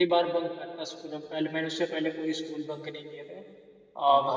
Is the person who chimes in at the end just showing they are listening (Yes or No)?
Yes